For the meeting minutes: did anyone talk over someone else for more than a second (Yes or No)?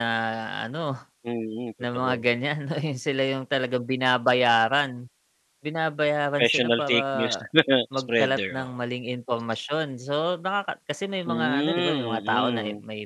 Yes